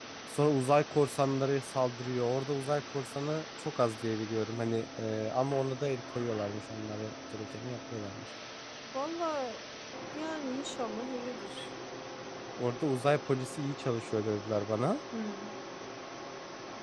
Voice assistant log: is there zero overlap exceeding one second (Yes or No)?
Yes